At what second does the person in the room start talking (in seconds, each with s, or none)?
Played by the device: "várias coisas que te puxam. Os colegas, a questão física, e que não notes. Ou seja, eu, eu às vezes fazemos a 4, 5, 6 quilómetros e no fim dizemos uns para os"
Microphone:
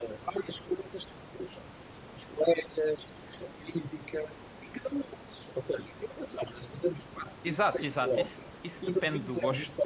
7.4 s